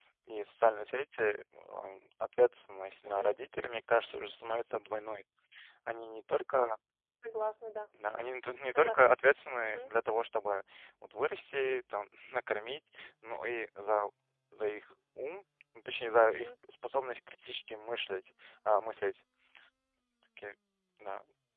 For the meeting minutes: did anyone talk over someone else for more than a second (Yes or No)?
No